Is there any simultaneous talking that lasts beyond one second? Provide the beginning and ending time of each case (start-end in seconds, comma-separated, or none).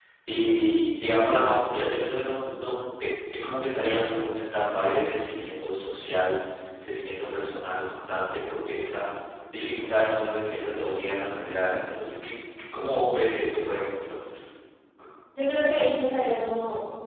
none